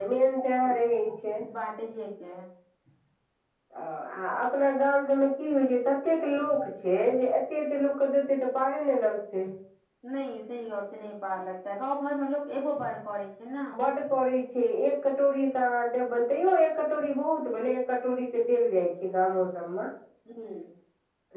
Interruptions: none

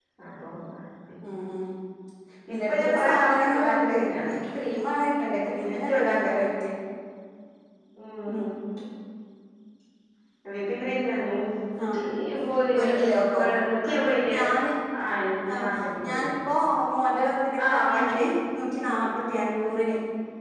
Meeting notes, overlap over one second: present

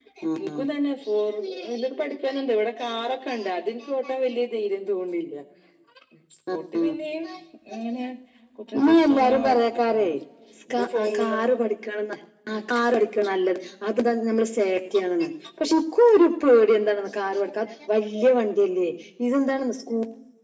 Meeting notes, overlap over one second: present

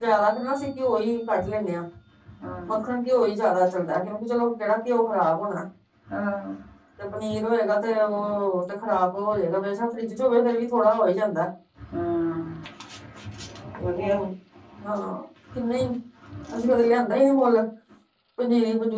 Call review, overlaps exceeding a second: none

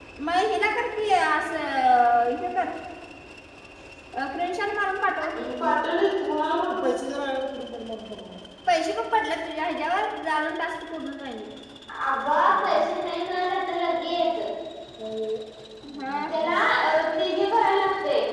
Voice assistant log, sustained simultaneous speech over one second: none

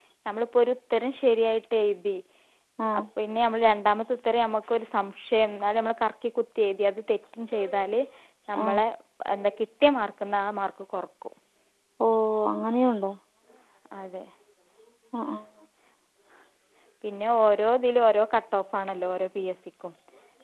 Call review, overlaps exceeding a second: none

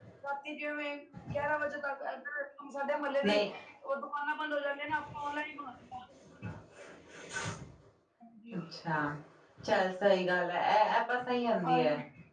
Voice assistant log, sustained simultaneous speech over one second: none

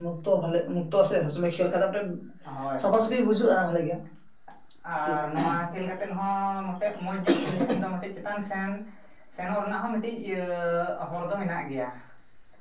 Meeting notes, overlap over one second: none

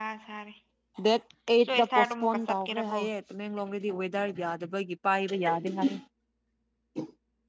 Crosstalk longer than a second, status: present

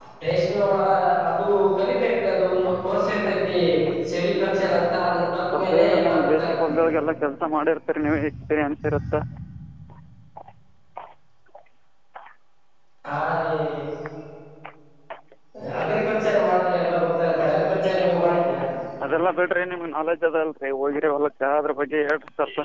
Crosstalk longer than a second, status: present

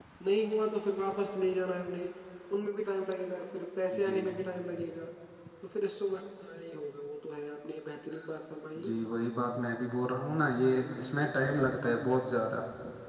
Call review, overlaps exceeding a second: none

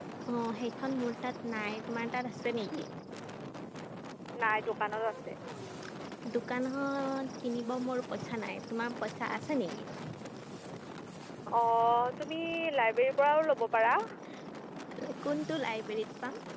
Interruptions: none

